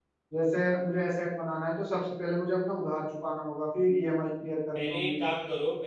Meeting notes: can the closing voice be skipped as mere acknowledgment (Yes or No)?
No